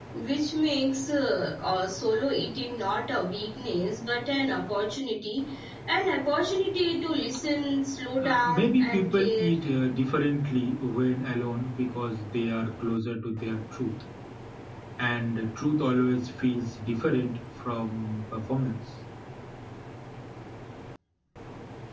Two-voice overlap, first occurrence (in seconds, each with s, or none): 8.2 s